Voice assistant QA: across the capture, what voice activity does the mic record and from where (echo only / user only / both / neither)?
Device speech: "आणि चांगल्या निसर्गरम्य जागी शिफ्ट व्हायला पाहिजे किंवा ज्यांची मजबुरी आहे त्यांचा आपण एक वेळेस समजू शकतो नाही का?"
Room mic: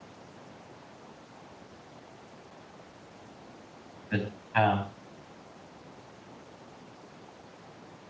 user only